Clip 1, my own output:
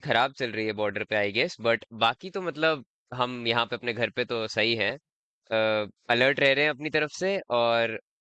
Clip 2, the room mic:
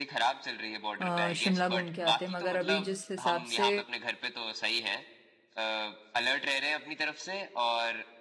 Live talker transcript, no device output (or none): अ, शिमला घूम के आते मगर अभी जिस हिसाब से